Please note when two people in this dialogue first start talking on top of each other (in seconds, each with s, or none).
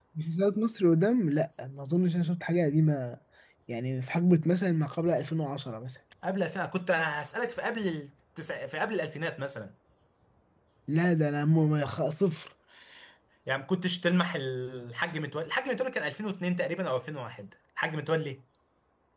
none